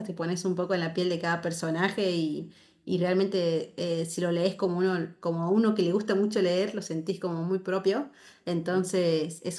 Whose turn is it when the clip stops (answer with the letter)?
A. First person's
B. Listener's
A